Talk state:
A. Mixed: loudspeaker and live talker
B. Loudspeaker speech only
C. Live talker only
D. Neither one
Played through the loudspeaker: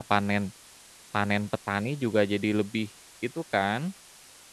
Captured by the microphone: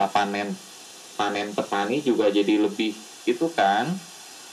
B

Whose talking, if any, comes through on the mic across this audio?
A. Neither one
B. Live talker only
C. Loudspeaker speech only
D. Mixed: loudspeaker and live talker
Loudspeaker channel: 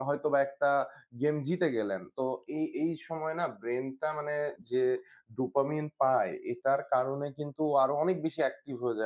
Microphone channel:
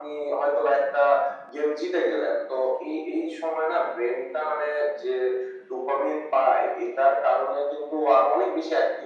C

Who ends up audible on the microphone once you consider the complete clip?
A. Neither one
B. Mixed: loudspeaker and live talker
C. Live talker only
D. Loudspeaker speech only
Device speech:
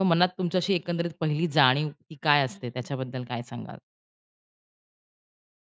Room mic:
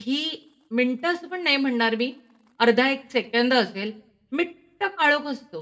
C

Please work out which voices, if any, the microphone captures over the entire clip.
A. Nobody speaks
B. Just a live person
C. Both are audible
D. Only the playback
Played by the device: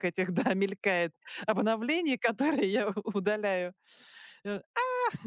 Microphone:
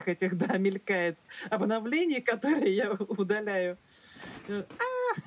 D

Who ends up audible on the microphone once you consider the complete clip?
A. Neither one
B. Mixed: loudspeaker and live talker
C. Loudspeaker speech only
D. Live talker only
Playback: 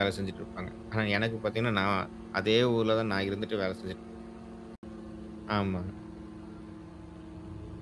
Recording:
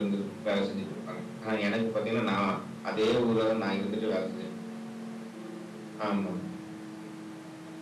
C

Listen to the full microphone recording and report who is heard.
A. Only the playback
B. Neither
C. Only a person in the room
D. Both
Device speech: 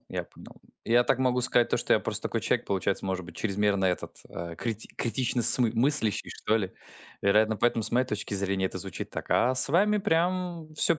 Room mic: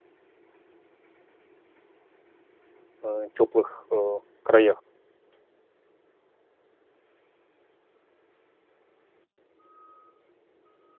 C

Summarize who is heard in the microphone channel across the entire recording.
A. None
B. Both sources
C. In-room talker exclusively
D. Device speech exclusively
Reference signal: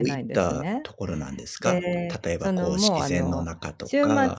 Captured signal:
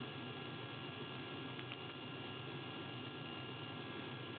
A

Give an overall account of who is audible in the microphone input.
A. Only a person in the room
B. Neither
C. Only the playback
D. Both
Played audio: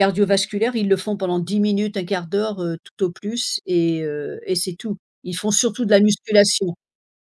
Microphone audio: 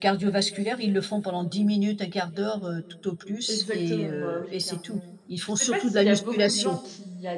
D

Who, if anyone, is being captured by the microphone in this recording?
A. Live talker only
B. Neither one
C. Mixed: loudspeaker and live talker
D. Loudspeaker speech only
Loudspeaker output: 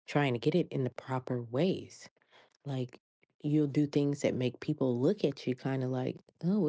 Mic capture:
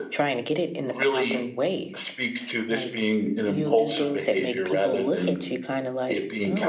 C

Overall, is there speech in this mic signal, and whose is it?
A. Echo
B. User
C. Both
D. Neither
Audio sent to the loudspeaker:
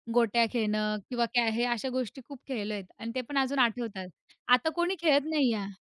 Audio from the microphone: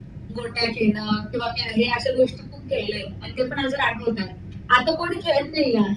A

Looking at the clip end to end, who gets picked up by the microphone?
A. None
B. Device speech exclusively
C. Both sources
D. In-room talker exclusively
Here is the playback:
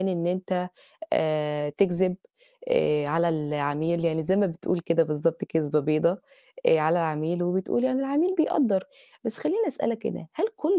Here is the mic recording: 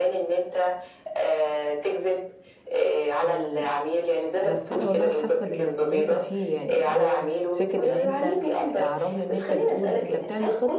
C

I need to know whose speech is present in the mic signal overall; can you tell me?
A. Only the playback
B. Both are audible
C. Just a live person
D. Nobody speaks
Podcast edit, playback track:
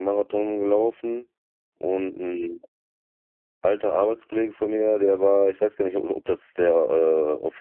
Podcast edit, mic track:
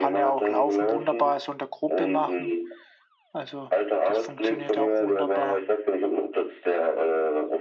B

